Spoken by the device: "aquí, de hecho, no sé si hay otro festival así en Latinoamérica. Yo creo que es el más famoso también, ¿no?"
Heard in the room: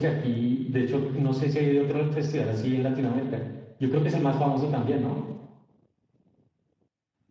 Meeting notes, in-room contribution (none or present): none